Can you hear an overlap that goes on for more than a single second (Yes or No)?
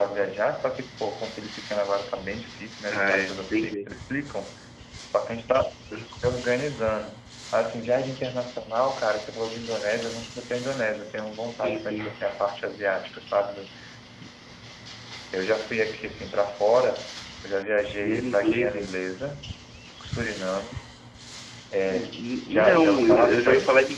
Yes